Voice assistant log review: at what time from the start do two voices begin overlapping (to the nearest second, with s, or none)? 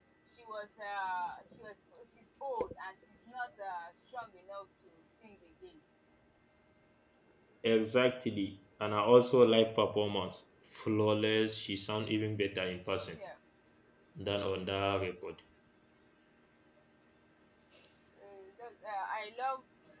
none